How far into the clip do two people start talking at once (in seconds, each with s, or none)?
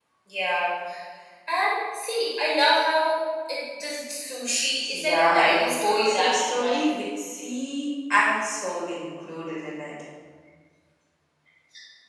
4.8 s